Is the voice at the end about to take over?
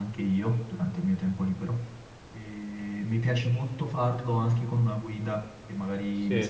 No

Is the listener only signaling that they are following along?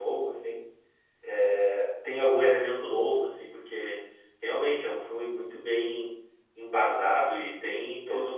Yes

